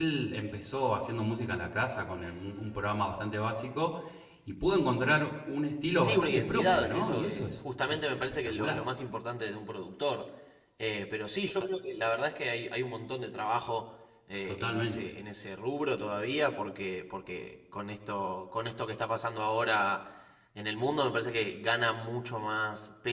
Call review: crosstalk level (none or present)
present